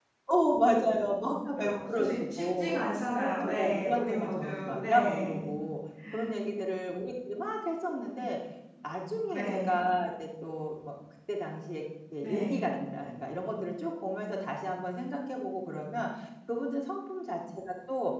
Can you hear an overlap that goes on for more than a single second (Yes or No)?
Yes